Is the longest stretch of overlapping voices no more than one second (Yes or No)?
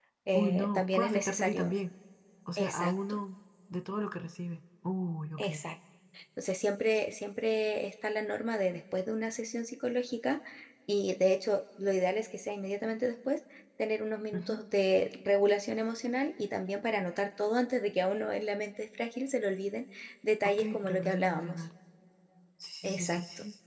No